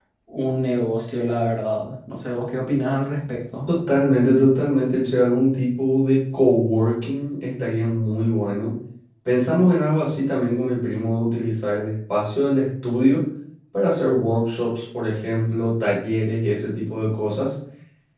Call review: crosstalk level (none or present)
none